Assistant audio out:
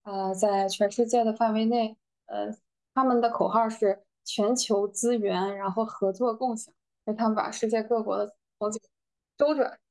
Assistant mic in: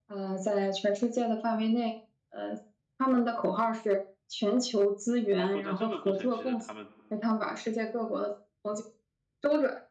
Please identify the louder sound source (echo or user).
echo